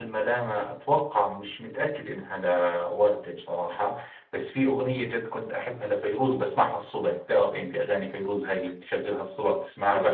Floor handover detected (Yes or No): Yes